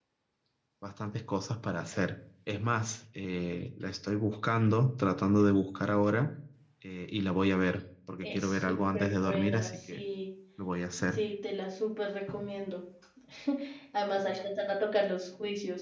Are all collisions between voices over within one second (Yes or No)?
No